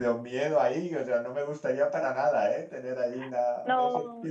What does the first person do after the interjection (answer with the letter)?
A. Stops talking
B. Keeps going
A